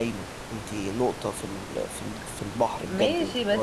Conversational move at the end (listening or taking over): taking over